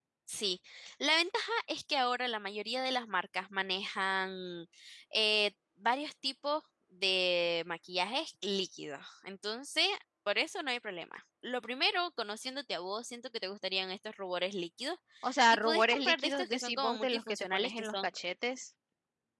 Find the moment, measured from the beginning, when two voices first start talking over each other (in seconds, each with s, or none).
15.5 s